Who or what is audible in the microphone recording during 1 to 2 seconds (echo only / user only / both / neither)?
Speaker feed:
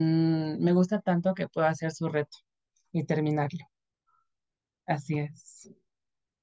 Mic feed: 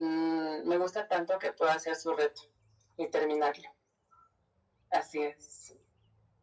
echo only